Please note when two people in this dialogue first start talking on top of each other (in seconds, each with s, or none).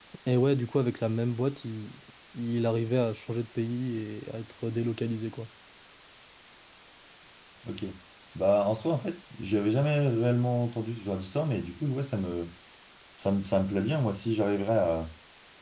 none